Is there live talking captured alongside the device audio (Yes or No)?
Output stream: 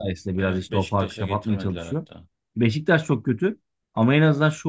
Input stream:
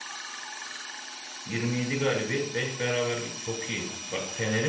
Yes